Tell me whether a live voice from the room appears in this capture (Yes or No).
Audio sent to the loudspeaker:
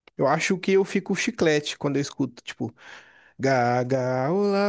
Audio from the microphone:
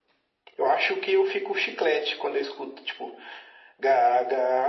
No